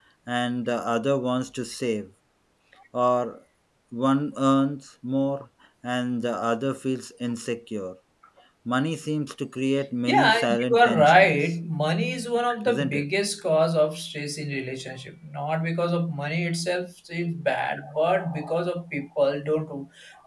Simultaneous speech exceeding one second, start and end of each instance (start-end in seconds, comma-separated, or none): 10.1-11.3